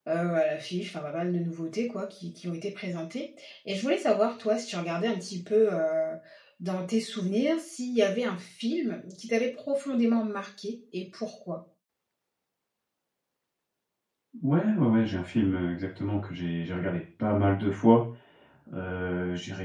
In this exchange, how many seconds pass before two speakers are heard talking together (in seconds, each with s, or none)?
none